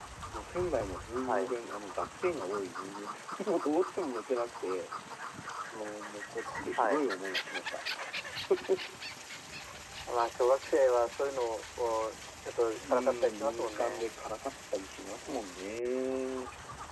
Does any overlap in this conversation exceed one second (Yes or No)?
Yes